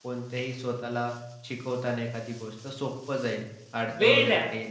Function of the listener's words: taking over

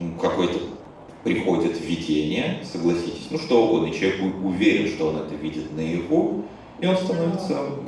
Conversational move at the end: listening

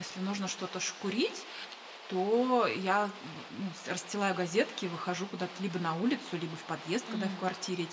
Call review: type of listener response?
listening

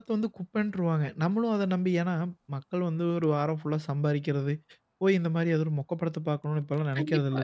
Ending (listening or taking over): taking over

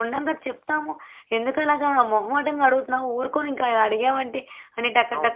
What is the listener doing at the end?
listening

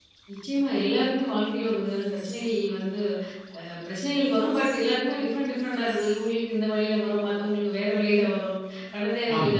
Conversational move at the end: listening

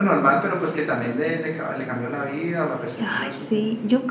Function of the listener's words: taking over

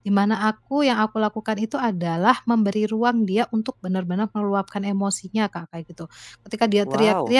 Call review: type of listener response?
listening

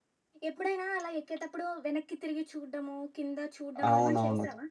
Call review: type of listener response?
taking over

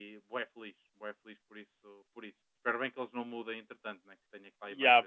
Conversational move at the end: taking over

